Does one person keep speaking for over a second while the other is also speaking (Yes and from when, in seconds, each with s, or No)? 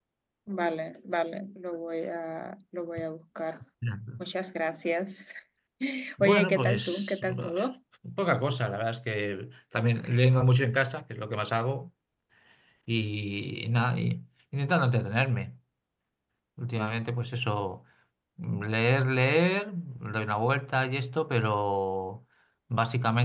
Yes, from 6.2 s